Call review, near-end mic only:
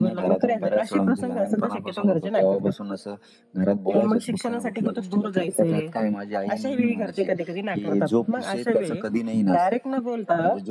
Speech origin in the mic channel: echo only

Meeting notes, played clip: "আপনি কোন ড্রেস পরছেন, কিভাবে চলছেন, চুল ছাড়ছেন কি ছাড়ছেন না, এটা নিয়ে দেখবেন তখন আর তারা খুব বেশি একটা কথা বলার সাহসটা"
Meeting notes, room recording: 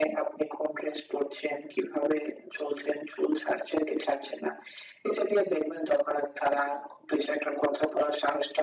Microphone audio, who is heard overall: echo only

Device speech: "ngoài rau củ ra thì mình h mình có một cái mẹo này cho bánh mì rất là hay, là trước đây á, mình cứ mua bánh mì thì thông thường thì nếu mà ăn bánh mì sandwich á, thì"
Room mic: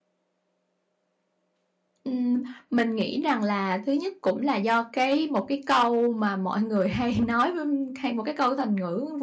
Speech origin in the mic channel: user only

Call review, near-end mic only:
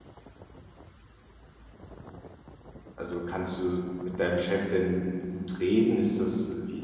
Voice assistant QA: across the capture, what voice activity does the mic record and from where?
user only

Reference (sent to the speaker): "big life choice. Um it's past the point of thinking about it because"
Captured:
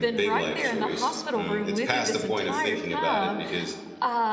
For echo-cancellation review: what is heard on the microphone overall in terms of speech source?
both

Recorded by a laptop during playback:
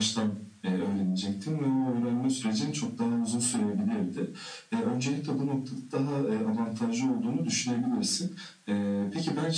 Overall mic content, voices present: echo only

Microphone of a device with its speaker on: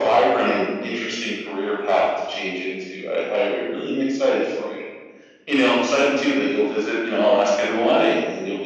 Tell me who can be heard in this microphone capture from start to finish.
echo only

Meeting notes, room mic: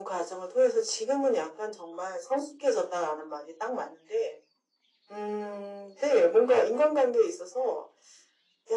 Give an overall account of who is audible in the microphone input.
echo only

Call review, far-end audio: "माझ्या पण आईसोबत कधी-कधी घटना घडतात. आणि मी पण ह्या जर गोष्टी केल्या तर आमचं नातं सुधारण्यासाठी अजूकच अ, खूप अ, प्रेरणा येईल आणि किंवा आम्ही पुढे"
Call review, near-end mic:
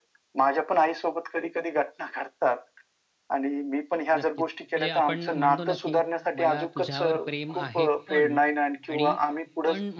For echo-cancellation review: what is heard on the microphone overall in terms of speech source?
both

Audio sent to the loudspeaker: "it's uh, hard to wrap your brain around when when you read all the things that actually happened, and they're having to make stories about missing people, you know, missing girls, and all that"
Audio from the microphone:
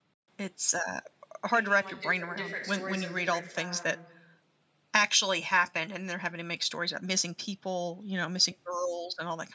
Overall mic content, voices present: both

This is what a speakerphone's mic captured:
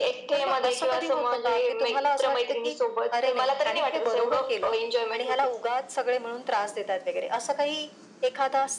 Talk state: echo only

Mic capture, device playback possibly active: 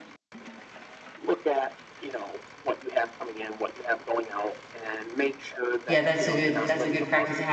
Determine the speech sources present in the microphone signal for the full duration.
both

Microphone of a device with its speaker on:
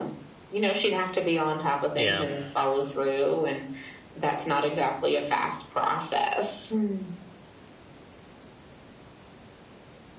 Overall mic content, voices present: both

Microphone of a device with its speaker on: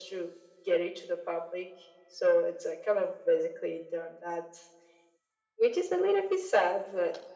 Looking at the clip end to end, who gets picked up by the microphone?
echo only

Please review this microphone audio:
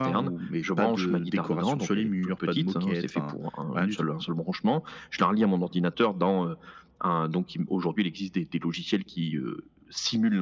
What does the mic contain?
echo only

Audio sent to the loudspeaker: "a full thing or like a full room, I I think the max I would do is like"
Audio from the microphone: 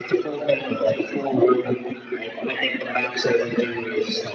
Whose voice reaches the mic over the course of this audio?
echo only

